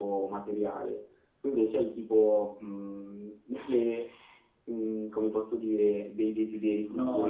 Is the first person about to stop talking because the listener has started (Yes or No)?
Yes